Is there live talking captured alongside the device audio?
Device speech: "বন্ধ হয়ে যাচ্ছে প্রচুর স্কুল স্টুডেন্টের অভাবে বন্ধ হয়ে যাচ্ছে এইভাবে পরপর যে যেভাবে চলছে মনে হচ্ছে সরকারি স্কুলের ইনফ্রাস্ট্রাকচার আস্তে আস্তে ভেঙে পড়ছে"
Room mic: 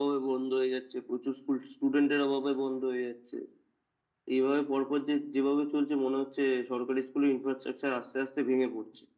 No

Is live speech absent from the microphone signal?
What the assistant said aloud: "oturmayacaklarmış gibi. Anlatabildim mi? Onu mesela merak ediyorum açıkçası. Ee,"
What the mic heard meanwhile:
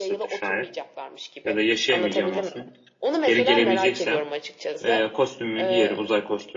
No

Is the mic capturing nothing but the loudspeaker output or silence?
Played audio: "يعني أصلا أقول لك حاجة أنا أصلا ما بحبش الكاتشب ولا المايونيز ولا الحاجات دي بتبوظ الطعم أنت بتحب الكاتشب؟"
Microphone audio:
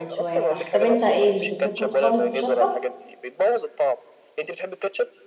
No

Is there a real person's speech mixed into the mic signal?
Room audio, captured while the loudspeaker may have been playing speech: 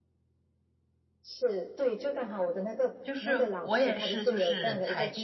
Yes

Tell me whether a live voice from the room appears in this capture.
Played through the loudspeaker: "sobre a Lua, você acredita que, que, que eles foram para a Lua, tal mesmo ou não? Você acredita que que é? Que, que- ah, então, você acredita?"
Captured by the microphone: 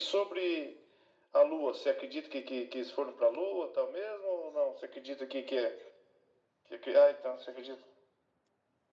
No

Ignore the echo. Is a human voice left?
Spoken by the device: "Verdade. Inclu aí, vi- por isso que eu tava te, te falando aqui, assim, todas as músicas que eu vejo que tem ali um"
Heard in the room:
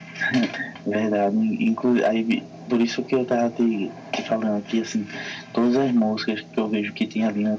No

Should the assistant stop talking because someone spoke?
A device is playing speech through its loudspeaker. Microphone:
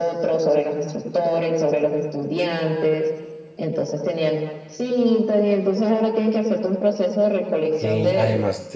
Yes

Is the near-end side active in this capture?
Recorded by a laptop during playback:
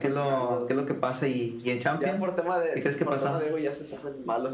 No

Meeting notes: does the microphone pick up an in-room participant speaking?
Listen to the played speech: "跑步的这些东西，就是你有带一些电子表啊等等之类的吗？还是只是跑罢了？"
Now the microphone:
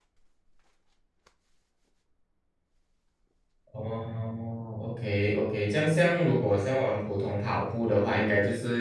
Yes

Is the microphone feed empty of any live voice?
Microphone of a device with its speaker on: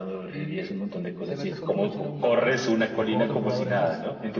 No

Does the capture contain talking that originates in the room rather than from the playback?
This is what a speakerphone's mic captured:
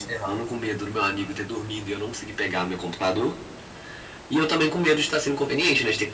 No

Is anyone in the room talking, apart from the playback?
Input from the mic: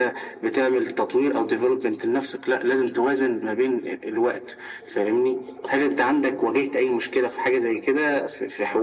No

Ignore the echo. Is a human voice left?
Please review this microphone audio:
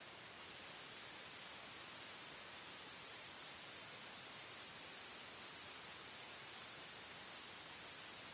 No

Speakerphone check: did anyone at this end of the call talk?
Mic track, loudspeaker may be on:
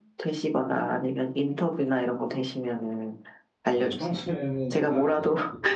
Yes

